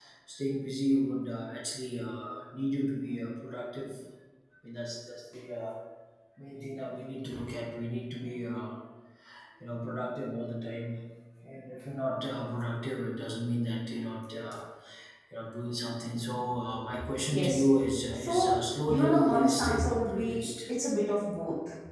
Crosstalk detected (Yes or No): Yes